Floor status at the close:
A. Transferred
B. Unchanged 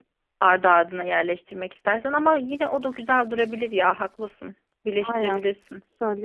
A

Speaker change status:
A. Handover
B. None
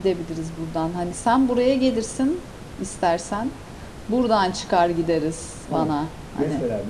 A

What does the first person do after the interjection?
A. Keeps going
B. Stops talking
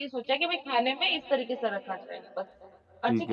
A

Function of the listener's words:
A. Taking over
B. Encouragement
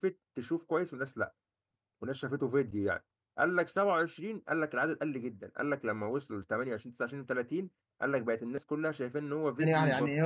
A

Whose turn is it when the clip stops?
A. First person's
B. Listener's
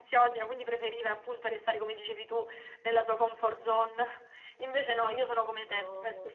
A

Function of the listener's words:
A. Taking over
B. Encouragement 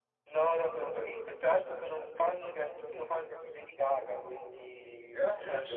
B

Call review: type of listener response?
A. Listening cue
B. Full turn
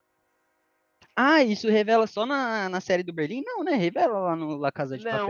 B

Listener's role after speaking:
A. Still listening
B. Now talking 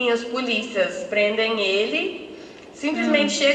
A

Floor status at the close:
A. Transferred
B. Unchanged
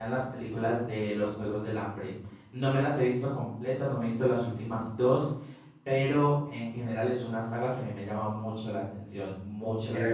A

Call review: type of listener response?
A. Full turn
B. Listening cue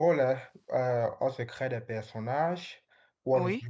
B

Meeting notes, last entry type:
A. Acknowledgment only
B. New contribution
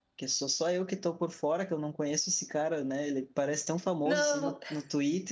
A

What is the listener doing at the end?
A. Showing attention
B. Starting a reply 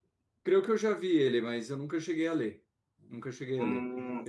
B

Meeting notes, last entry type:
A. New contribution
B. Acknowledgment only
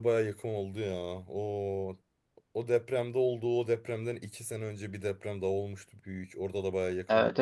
A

